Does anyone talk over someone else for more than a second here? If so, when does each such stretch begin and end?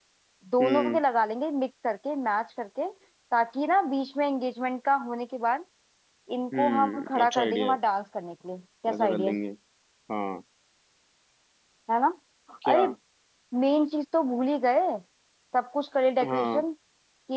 6.5-7.8

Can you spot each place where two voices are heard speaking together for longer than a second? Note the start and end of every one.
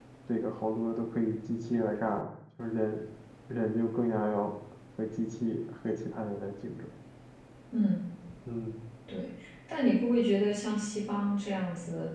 none

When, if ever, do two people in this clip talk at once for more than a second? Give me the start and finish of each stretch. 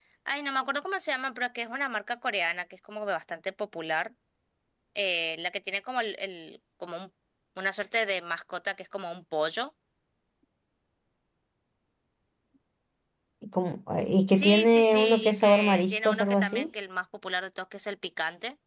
14.3-16.7

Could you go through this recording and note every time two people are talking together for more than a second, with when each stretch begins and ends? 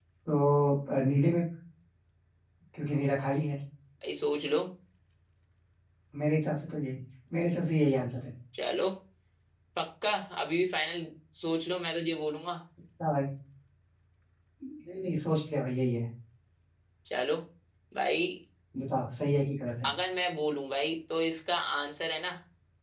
none

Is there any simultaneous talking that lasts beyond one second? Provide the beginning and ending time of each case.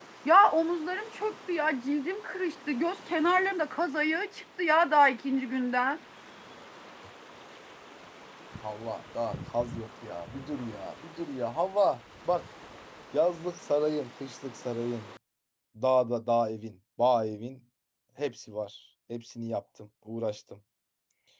none

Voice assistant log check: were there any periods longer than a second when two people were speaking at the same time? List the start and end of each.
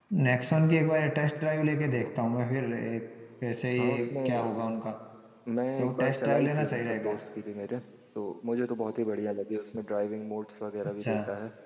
5.8-7.1

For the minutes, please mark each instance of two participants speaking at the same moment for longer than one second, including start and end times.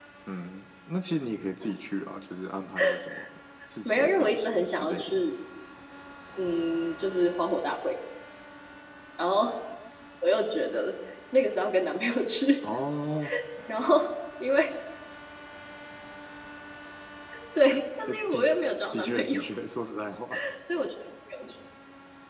3.9-5.2

